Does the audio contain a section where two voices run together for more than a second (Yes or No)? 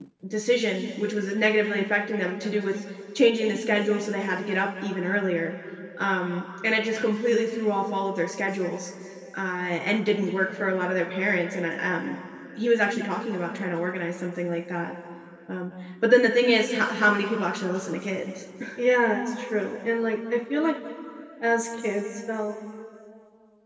No